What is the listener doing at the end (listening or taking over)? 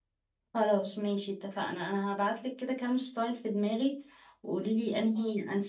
listening